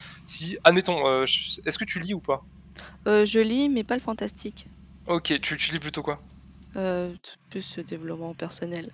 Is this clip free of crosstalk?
Yes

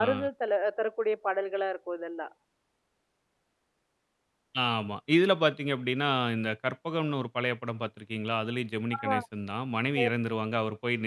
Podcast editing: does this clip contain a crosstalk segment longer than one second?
No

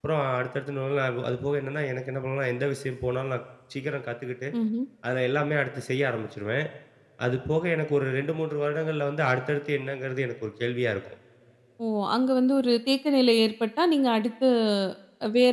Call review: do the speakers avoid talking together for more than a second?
Yes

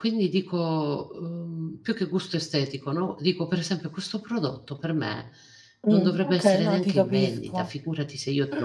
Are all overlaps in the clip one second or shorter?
No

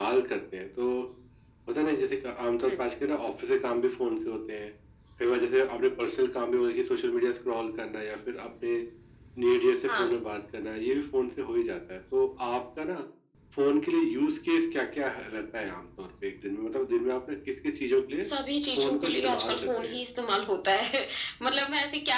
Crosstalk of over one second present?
Yes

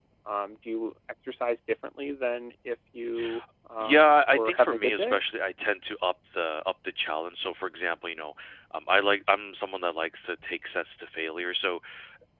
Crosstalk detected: Yes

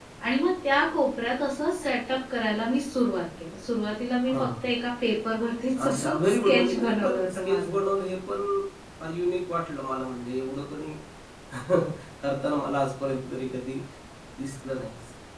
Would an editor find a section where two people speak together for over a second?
Yes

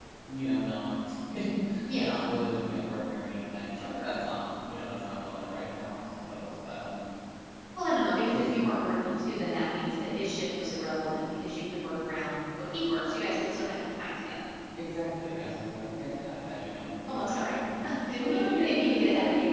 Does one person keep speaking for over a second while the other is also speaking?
Yes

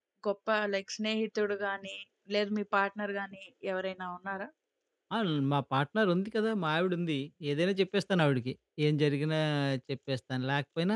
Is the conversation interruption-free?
Yes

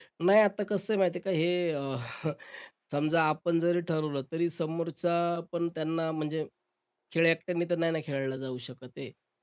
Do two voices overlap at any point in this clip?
No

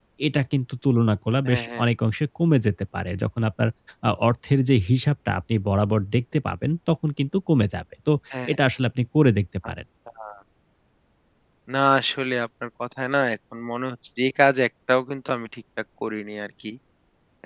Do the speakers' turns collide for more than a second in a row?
No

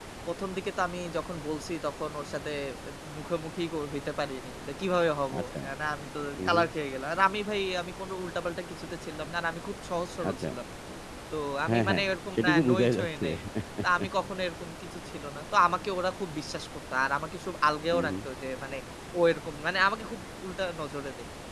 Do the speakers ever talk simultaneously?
Yes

